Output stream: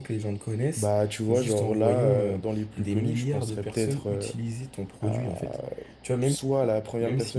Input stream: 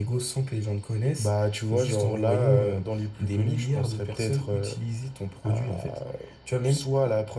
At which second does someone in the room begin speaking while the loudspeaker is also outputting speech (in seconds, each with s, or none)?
none